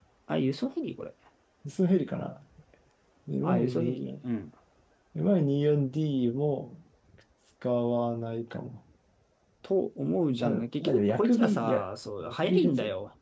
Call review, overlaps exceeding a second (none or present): present